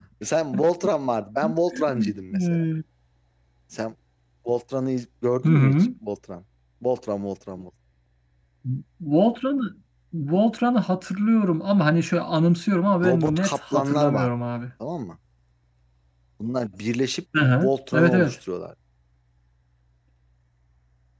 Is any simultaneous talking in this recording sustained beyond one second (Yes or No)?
Yes